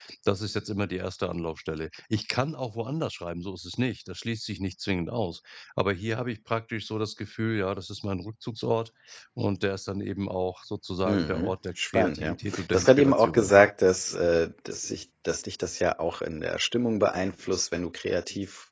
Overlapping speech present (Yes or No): Yes